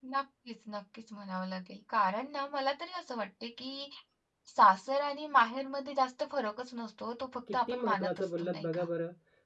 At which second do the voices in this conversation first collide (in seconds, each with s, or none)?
7.5 s